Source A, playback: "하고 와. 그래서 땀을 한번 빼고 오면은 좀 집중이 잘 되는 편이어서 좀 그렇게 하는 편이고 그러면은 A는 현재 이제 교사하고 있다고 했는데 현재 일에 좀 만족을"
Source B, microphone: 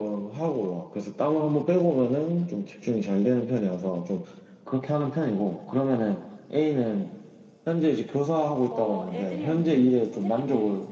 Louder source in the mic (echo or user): echo